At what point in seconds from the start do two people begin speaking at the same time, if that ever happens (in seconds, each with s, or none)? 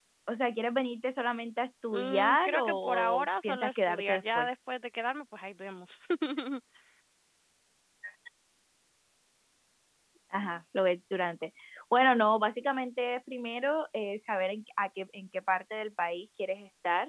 1.9 s